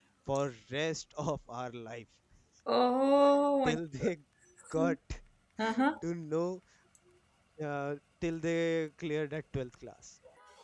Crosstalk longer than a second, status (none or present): none